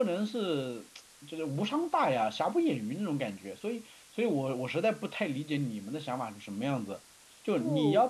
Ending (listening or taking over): listening